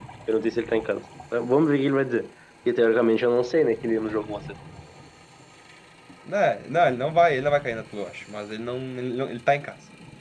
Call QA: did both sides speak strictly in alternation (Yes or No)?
Yes